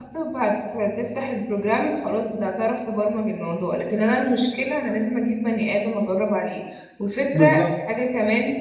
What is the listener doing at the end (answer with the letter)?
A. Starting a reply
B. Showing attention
B